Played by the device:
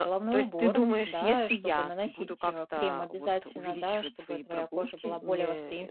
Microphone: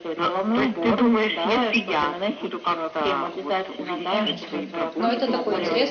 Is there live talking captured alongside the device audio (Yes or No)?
Yes